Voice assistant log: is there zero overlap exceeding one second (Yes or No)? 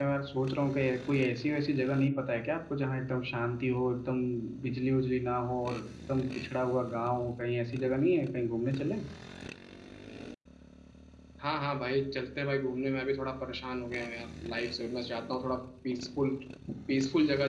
Yes